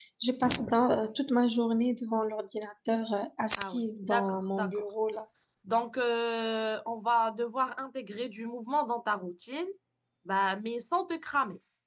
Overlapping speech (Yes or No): Yes